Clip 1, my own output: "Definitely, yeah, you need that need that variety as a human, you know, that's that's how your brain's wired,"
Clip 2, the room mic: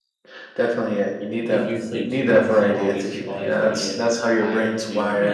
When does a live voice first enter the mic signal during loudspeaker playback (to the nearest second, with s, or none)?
1 s